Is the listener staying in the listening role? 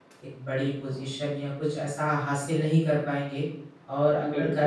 Yes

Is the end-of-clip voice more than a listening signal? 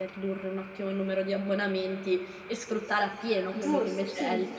Yes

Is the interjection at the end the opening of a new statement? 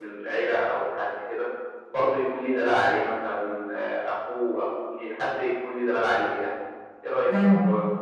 Yes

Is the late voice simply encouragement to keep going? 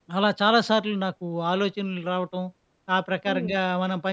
Yes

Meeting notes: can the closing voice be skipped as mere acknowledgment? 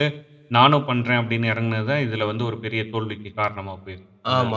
No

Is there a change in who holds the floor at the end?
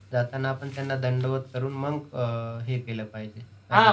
Yes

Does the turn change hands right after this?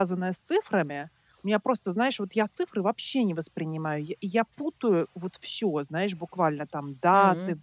No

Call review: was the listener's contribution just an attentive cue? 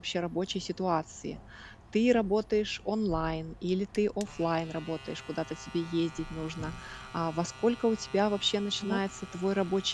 Yes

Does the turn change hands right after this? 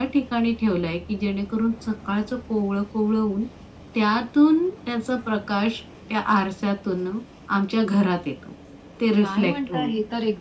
Yes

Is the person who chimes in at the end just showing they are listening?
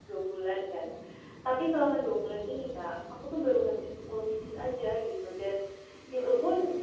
Yes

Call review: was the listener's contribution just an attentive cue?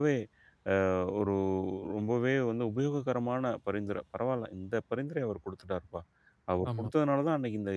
Yes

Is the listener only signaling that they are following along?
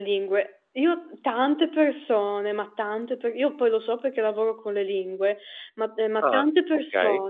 Yes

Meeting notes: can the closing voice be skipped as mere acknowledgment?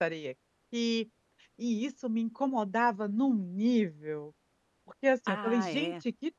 Yes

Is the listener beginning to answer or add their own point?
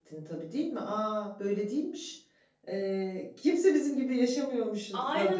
Yes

